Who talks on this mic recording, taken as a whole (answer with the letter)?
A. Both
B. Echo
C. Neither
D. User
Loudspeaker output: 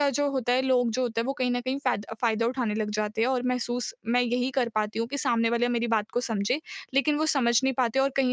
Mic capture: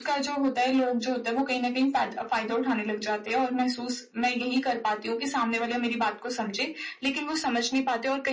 B